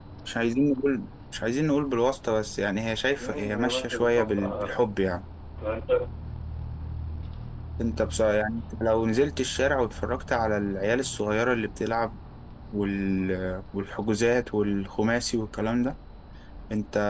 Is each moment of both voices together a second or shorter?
No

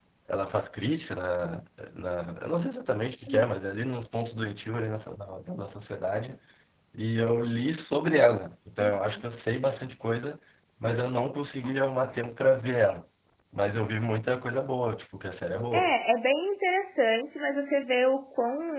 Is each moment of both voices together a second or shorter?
Yes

